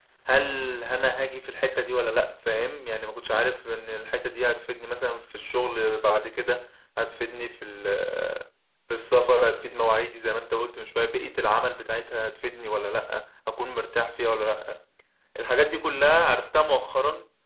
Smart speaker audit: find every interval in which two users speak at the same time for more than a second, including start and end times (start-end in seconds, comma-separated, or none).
none